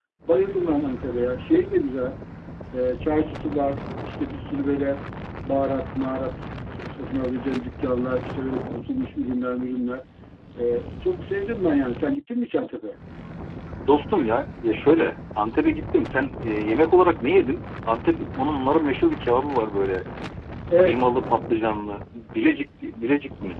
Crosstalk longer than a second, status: none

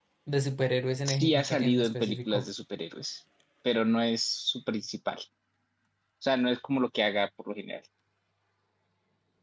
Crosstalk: present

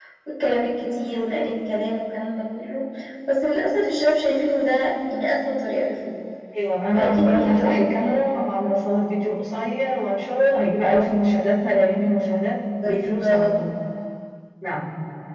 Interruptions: present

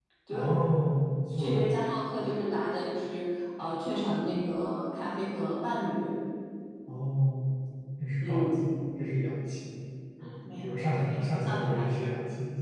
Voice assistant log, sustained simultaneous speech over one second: present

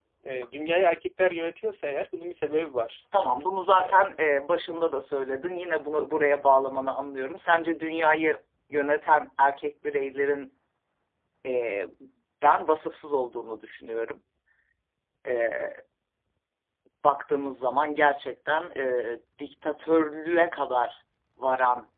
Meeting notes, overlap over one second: none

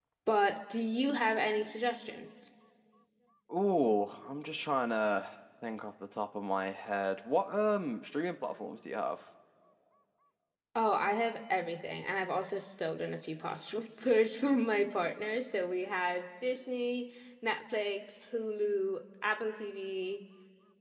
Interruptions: none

